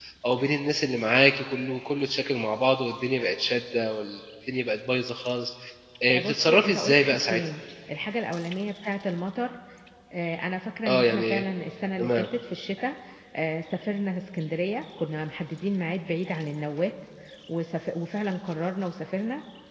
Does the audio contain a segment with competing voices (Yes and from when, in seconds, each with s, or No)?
Yes, from 6.1 s